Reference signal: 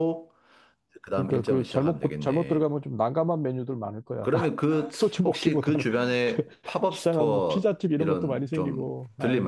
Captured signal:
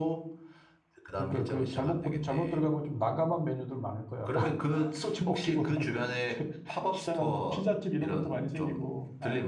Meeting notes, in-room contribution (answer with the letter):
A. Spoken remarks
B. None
B